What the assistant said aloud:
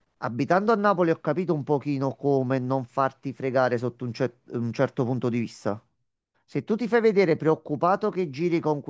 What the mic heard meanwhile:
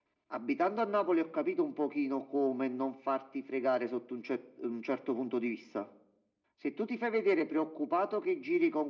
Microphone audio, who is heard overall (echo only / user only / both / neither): echo only